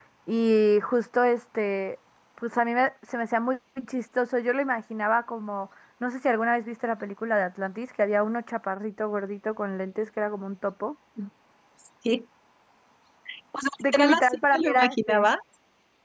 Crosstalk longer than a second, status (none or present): present